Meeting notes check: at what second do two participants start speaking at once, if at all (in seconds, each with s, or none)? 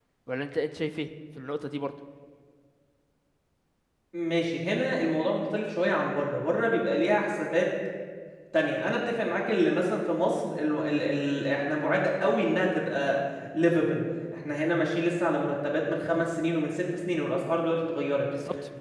none